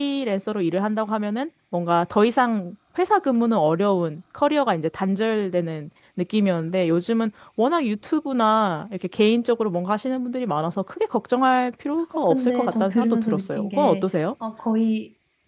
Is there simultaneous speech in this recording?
Yes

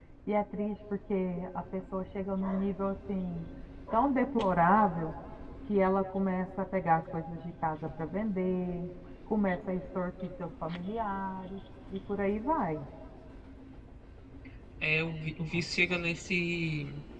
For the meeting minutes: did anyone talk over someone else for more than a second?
No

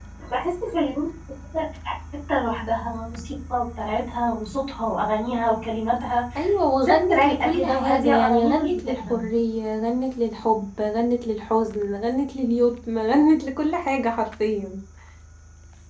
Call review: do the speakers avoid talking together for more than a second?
No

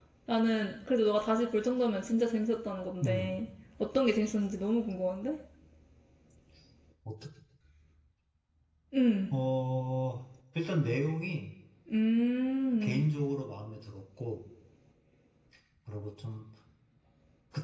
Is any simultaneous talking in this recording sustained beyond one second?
No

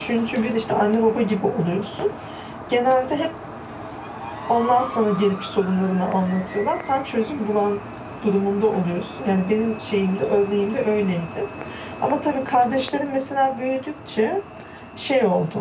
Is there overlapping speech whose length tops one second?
No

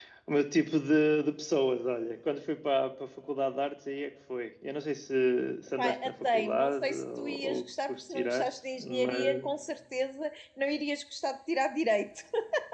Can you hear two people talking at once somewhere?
Yes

